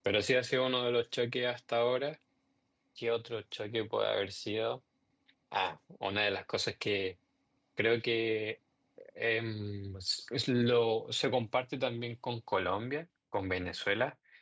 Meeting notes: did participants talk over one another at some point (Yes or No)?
No